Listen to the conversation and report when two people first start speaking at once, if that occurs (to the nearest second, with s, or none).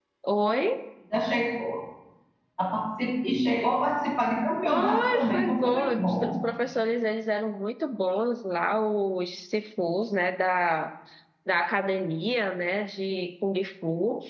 5 s